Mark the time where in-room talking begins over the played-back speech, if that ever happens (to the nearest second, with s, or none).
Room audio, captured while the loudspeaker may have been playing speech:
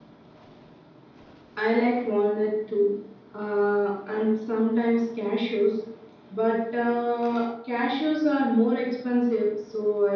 none